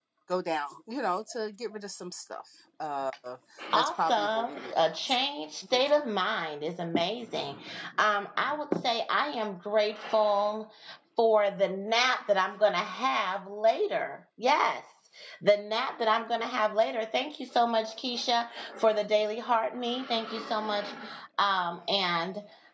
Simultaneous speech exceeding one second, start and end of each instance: 3.7-5.2

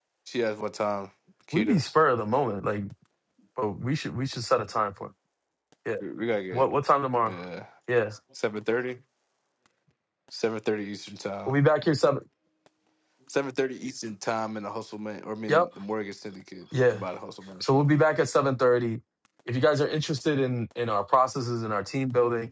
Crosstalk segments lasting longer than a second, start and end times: none

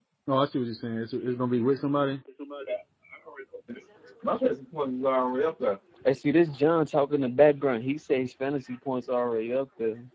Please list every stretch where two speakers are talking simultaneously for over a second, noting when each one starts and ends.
none

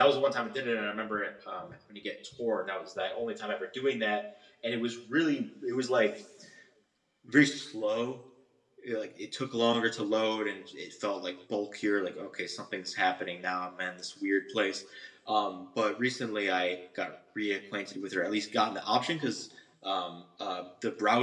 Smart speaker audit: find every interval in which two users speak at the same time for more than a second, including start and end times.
none

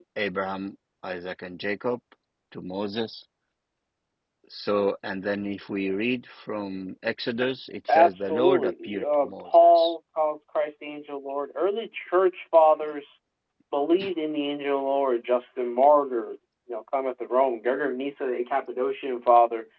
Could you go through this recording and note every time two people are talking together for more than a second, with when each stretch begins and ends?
7.9-9.9

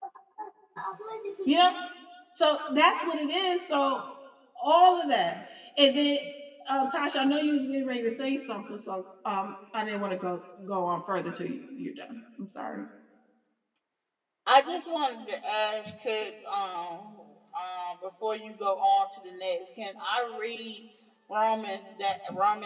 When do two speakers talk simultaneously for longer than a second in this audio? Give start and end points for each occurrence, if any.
none

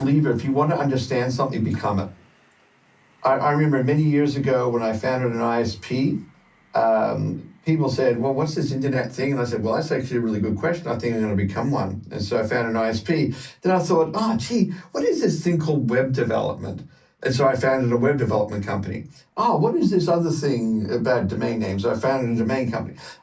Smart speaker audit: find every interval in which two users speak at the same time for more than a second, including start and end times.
none

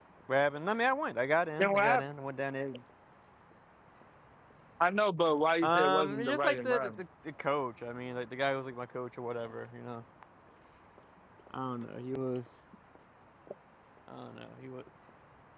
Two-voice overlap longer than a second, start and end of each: 5.6-6.9

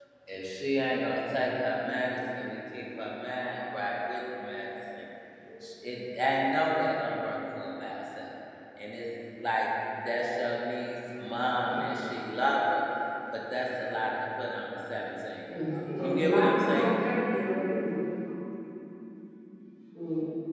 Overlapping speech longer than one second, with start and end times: 15.5-16.9

